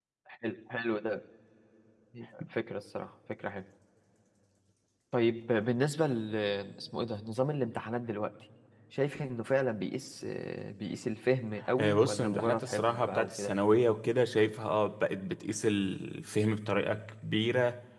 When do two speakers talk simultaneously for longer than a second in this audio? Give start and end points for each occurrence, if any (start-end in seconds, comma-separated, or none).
11.8-13.5